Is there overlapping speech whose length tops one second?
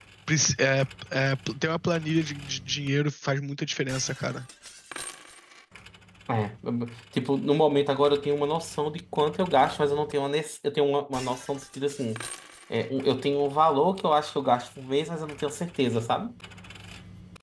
No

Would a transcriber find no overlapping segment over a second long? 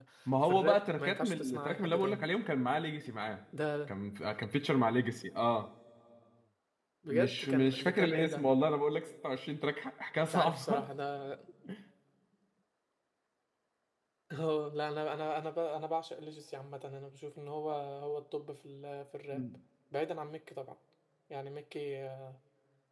No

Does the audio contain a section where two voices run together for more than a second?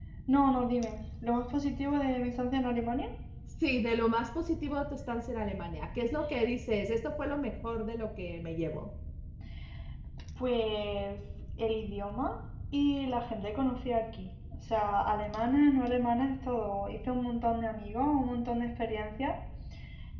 No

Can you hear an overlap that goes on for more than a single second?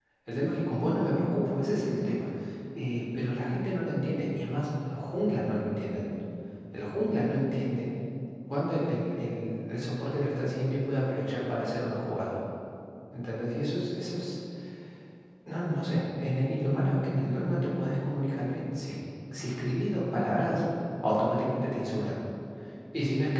No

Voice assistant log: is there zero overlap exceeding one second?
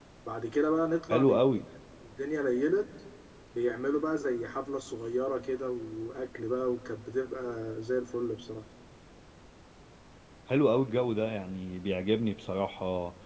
Yes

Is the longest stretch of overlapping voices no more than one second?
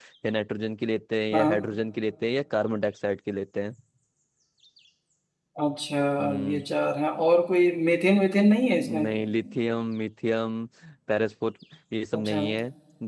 Yes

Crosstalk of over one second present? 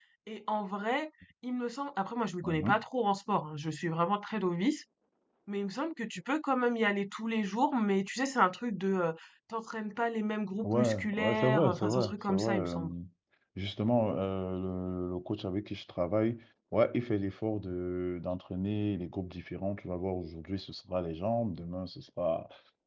Yes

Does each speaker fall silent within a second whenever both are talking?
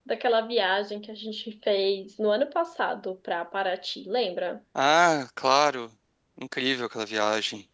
Yes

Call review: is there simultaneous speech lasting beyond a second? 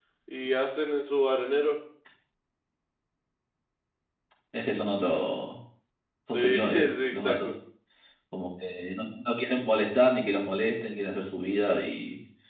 Yes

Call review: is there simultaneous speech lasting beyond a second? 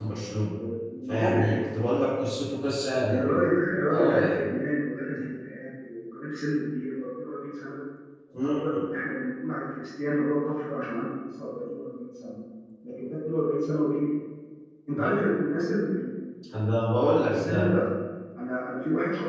No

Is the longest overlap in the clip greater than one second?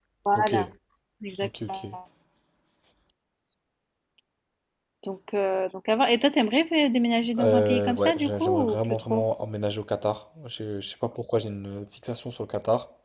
Yes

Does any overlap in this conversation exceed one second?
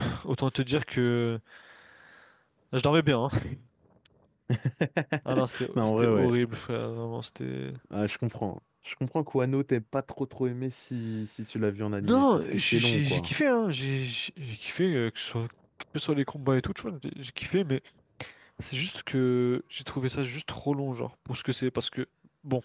Yes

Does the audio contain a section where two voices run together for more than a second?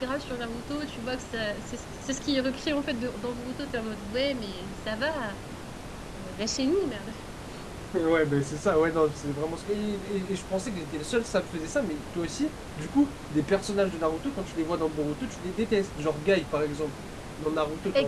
No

